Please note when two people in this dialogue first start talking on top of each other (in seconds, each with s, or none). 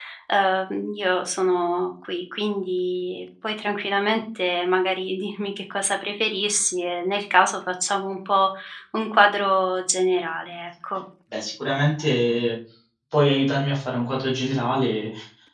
none